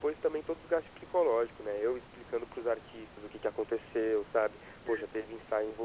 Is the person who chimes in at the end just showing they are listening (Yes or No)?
Yes